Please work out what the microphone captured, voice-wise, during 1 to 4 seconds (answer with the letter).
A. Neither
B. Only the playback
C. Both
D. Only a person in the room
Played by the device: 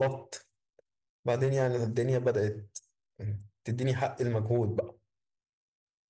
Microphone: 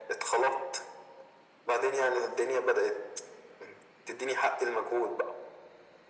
B